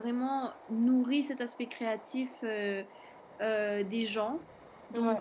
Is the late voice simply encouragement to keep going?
Yes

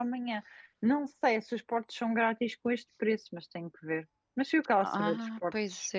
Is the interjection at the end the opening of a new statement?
Yes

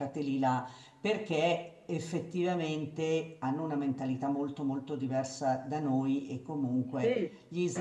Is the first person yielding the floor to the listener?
No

